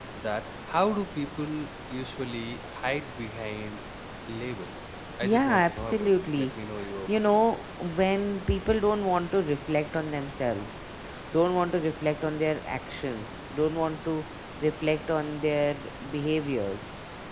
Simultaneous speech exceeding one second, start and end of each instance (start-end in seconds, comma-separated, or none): 5.2-6.5